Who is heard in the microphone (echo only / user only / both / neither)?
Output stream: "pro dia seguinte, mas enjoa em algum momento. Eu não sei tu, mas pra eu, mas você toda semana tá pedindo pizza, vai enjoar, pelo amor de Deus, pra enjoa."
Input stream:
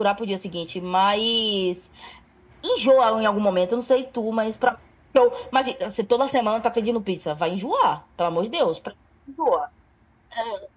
echo only